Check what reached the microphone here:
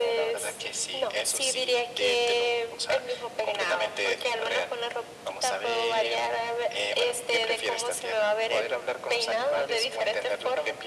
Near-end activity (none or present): none